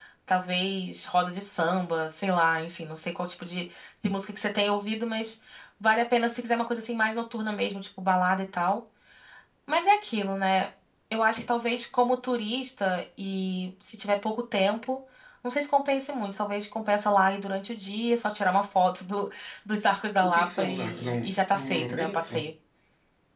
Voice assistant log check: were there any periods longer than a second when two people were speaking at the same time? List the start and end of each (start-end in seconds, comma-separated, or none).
20.2-22.5